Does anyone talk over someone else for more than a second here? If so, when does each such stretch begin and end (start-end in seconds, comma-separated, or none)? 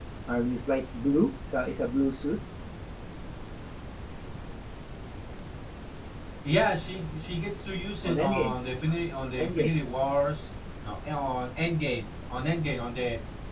none